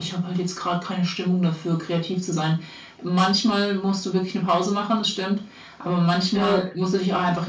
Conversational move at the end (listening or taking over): listening